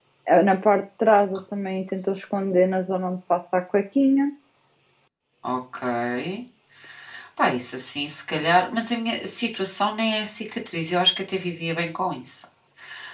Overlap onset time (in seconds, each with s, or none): none